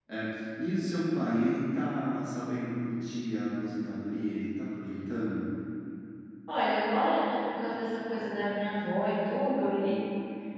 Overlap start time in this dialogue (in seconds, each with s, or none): none